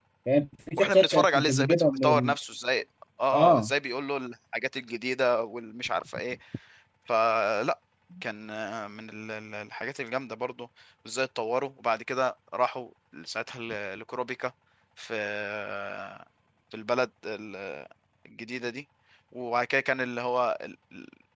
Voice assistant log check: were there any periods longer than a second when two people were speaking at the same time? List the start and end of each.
0.8-2.4

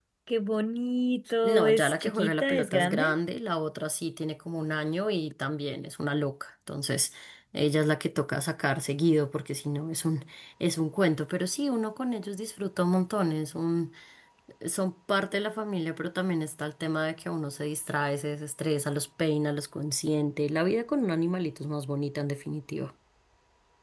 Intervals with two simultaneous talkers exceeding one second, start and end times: 1.4-3.1

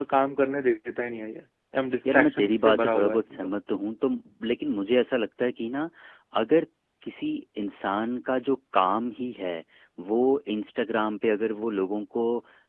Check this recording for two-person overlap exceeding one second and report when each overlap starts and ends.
2.1-3.5

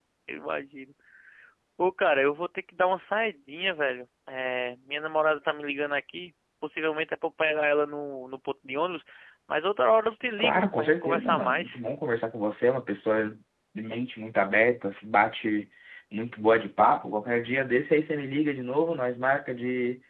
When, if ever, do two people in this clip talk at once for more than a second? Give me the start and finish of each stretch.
10.4-11.8

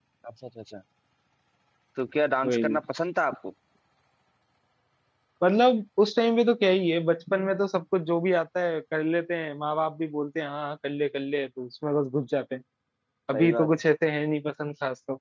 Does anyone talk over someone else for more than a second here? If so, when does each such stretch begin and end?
none

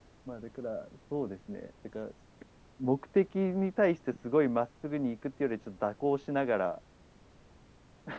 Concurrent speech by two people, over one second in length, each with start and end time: none

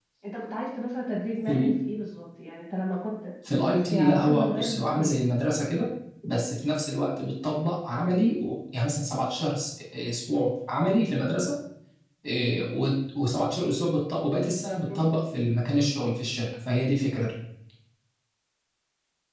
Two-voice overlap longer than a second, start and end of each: 3.5-5.2

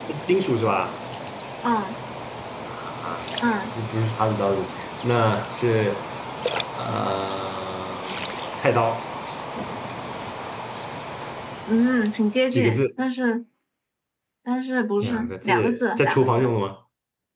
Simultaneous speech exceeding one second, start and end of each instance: 15.0-16.5

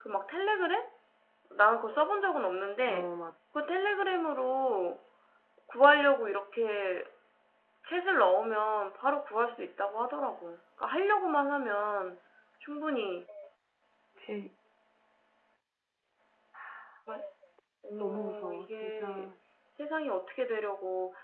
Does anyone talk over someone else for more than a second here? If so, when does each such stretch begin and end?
17.9-19.3

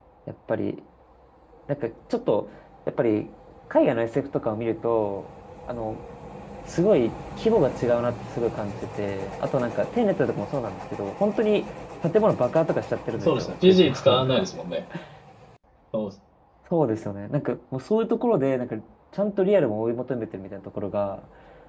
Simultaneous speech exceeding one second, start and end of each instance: 13.2-14.4

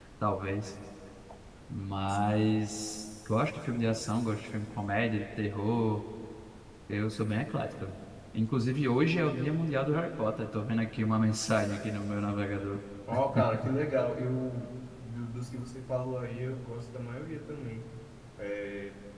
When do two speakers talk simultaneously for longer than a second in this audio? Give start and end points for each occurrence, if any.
none

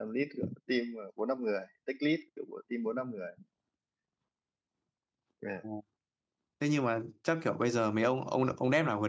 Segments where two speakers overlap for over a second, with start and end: none

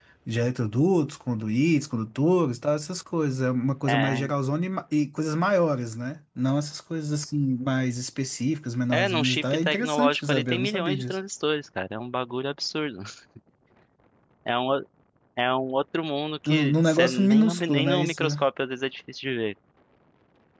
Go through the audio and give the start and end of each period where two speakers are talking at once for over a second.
8.9-11.2, 16.5-18.2

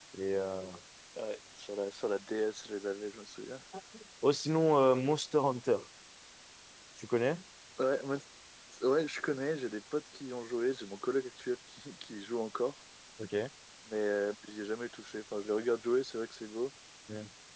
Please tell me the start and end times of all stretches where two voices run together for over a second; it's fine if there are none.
none

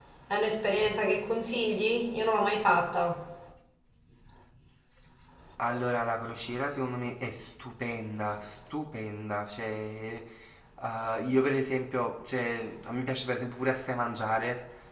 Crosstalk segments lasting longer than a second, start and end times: none

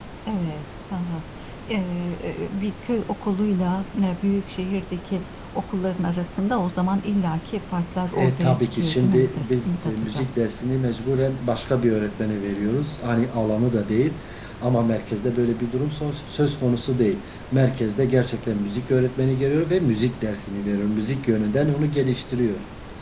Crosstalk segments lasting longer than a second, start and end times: 8.2-10.3

